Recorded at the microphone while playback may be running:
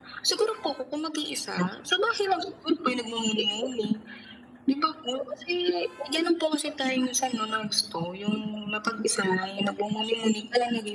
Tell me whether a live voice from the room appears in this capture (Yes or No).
No